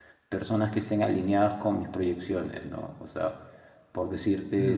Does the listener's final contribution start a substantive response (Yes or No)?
No